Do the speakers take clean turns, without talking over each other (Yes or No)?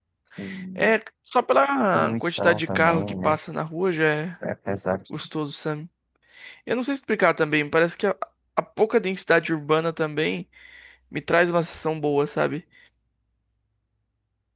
No